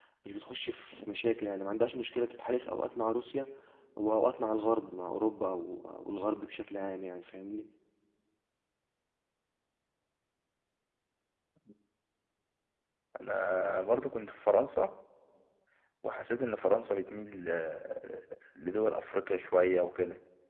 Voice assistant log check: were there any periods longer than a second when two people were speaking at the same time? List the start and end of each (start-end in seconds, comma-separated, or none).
none